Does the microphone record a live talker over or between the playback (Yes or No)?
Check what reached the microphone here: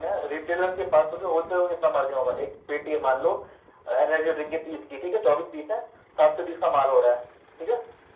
No